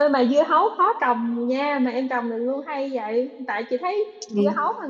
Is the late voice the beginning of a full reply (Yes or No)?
No